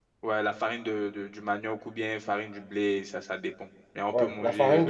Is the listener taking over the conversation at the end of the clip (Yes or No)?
Yes